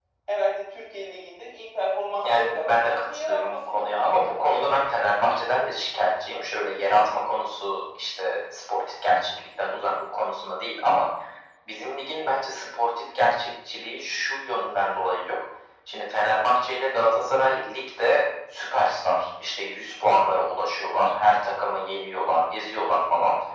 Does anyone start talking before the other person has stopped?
Yes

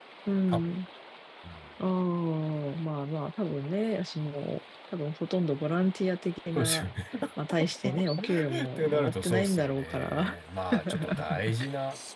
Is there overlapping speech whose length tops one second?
Yes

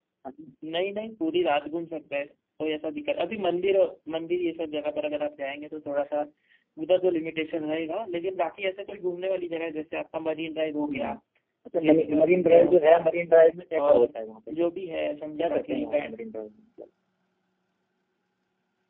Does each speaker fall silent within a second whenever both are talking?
No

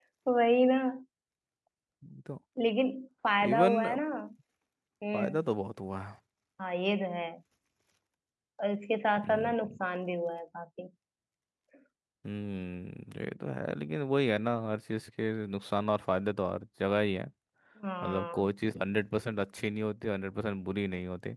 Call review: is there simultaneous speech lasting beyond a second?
No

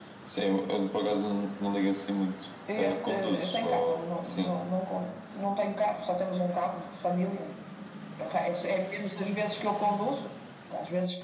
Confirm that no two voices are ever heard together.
No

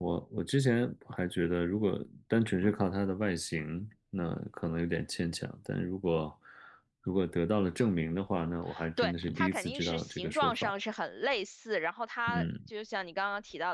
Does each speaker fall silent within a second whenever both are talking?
No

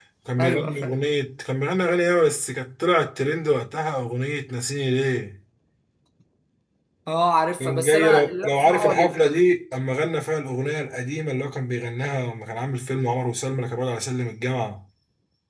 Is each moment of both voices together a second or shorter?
No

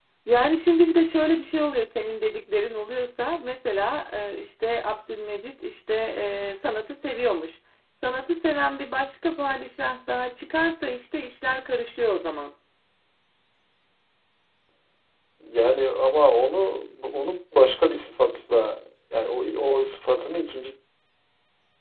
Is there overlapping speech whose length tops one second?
No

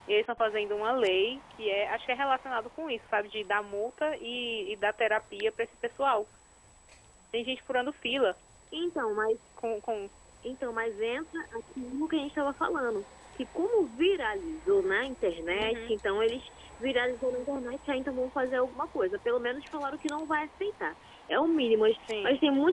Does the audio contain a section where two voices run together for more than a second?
No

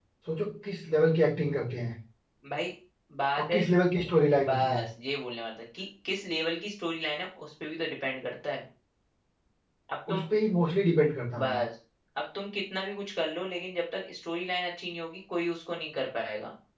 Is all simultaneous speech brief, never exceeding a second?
Yes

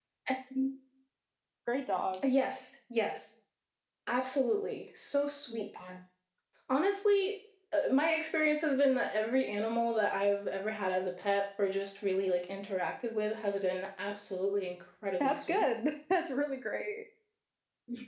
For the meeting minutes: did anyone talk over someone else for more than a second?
No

